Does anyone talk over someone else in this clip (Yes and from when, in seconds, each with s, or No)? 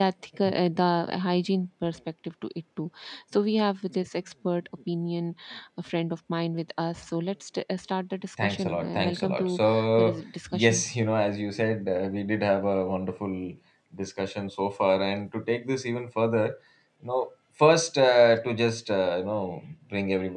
Yes, from 8.4 s